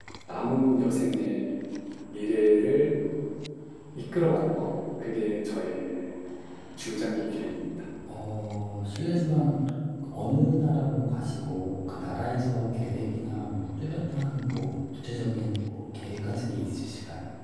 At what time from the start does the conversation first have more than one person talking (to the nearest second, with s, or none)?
none